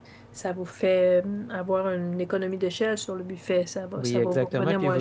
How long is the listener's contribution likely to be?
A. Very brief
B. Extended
B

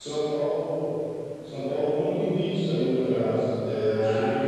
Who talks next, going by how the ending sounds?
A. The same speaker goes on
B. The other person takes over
A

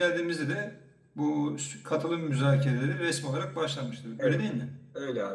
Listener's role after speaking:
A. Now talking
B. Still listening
A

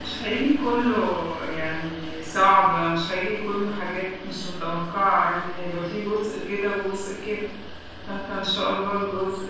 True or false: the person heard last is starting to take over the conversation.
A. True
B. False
B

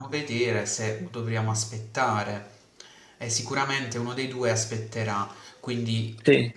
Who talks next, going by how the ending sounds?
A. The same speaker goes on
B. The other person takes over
A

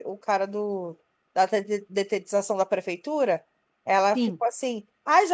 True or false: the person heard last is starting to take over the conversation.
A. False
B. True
A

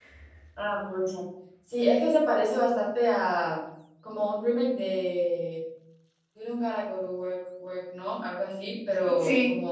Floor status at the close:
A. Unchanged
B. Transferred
A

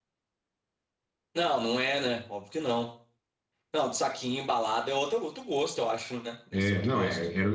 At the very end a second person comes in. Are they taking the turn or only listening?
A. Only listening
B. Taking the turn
B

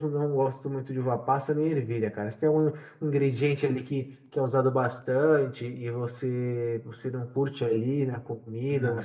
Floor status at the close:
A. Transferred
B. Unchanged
A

